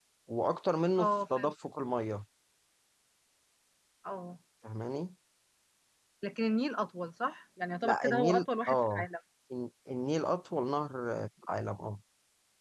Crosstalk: present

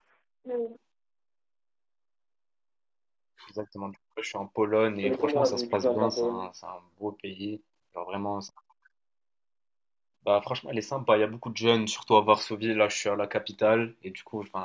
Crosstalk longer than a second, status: present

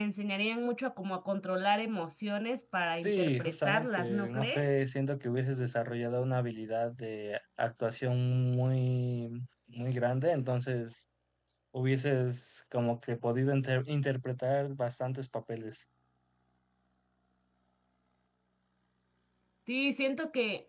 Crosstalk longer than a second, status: present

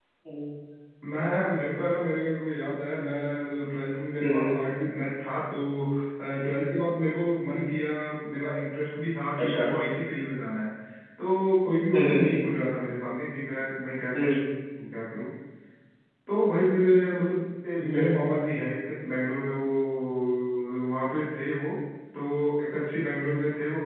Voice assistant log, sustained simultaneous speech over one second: none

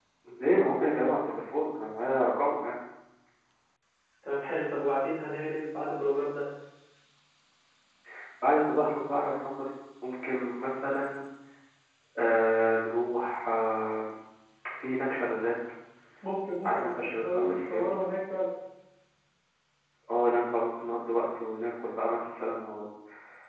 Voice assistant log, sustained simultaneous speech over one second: present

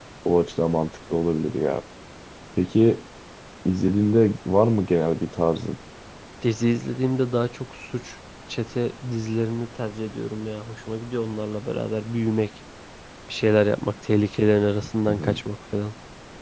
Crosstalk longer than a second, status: none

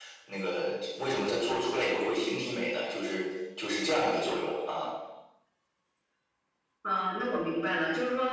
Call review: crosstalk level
none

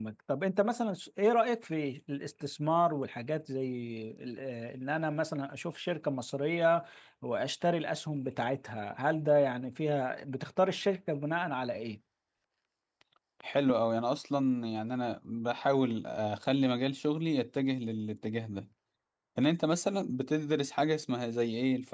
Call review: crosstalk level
none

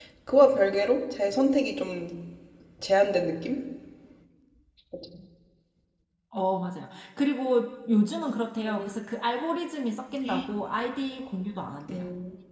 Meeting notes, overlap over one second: none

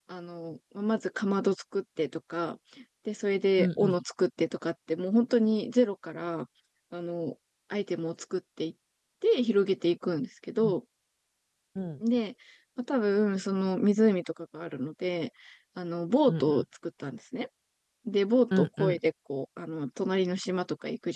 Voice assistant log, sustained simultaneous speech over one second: none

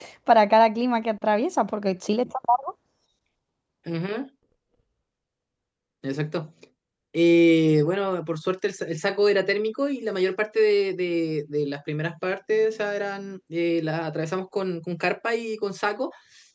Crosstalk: none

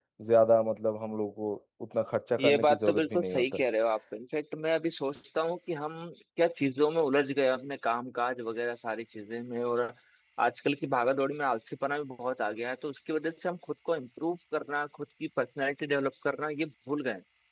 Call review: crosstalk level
present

